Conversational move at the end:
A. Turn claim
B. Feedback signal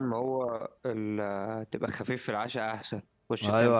A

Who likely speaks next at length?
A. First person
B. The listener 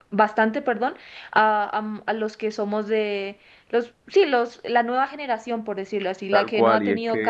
B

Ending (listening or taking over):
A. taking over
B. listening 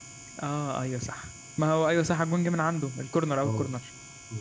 A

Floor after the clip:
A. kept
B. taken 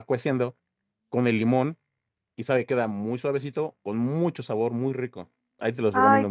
B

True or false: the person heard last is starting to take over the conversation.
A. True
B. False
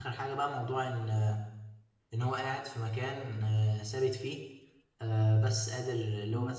B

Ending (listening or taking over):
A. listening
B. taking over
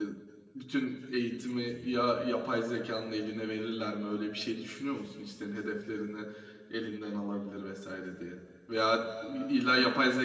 A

